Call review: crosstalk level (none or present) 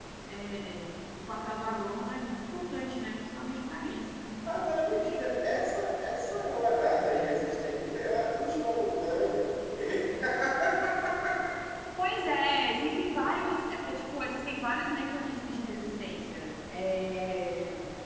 none